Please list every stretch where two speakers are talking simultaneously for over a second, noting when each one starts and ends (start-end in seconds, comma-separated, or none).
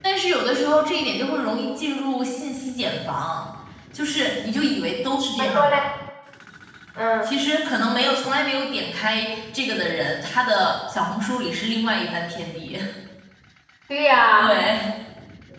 none